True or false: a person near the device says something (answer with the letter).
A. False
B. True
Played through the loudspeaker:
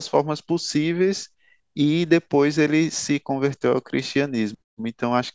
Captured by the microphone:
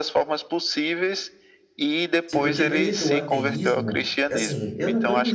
B